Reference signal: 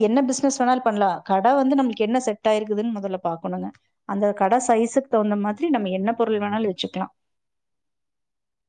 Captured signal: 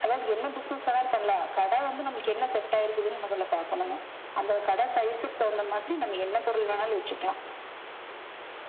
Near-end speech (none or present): none